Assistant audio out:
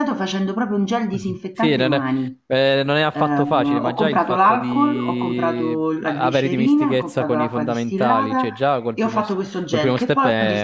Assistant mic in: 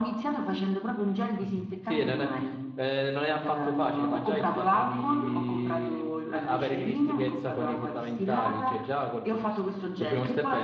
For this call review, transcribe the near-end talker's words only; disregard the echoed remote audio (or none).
none